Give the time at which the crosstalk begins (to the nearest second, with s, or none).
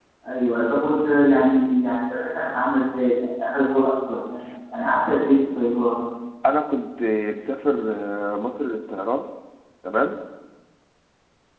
none